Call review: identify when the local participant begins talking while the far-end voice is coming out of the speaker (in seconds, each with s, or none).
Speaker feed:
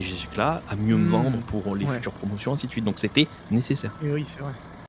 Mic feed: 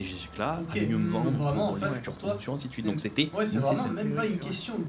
0.6 s